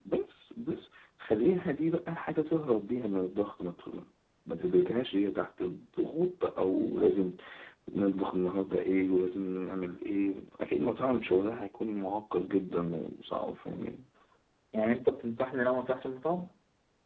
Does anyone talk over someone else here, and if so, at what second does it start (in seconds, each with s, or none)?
none